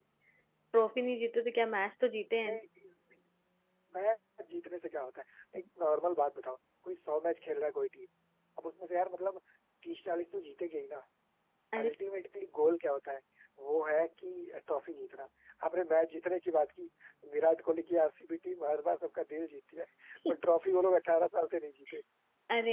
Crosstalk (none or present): none